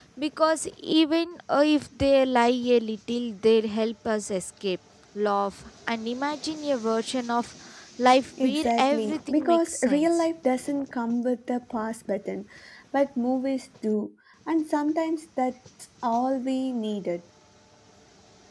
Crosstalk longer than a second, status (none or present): present